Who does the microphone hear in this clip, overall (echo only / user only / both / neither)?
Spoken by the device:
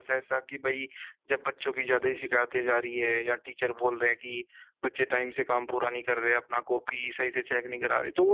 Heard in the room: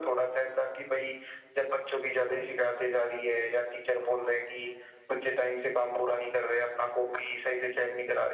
echo only